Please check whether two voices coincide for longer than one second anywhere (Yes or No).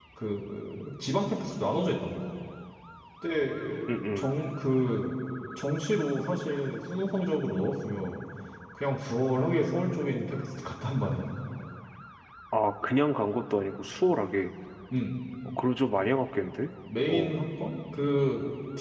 No